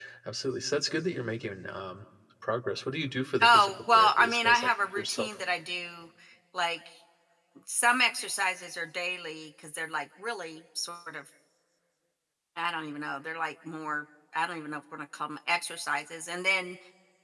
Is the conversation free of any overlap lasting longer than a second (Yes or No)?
No